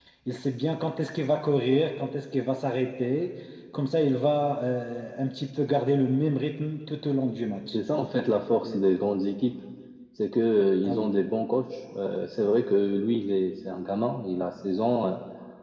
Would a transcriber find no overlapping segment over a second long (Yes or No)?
Yes